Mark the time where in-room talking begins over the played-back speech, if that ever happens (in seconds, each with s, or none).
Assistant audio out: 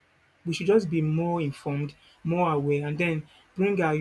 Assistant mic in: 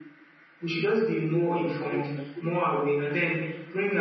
1.3 s